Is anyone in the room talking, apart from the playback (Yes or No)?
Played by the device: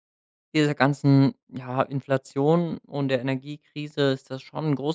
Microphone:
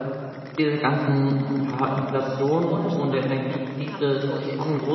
Yes